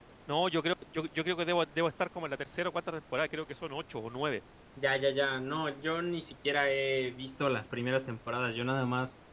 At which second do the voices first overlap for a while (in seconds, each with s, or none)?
none